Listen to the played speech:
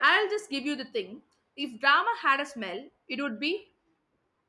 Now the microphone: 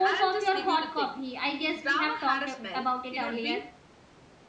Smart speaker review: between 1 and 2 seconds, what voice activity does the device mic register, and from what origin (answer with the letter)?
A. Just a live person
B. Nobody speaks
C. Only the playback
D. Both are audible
D